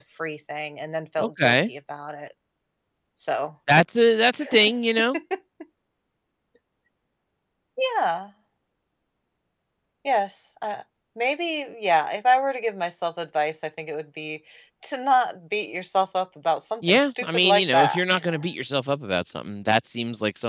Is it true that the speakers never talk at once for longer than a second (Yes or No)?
No